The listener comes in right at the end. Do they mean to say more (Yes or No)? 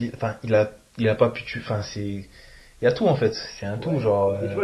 Yes